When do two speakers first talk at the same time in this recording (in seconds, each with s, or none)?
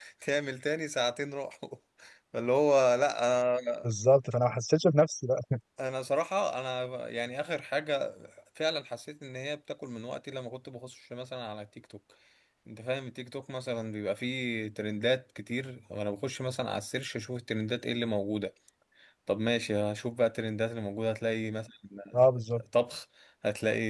none